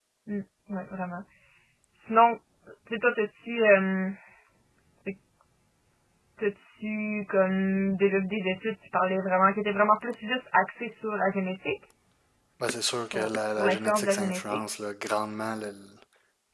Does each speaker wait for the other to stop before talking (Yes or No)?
No